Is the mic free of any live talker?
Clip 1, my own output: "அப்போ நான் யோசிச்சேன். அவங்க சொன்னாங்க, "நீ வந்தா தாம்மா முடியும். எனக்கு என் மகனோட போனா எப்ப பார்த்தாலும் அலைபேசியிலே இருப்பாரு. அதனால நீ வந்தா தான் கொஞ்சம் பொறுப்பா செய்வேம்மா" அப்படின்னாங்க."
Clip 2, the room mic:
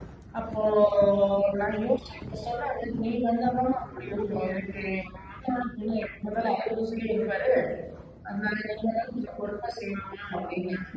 Yes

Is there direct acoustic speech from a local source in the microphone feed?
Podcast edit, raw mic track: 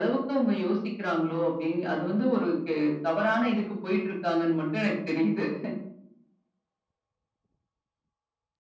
No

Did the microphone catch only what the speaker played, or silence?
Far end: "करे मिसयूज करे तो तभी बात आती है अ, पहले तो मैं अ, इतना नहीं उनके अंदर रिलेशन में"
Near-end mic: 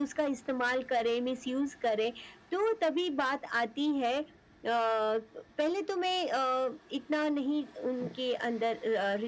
Yes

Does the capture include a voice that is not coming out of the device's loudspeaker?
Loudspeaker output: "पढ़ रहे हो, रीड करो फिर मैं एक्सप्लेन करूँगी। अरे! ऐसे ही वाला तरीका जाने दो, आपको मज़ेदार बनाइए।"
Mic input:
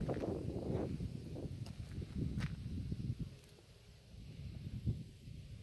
No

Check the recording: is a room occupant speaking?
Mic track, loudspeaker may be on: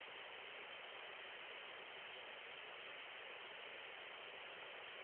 No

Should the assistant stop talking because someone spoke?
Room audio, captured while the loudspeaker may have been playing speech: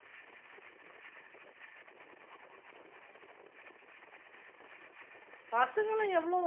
Yes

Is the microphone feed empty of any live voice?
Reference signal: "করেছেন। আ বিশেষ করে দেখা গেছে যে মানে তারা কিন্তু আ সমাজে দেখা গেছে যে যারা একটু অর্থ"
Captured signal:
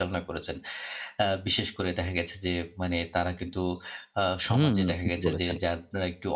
No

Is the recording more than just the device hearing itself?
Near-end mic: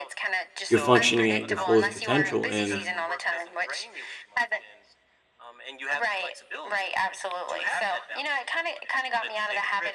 Yes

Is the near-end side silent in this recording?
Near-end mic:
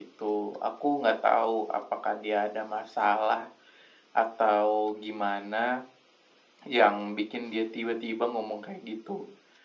Yes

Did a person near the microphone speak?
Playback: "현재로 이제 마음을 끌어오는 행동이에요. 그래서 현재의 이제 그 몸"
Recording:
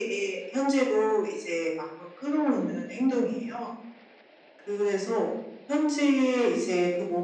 No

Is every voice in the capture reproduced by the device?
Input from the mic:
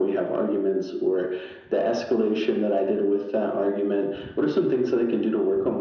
Yes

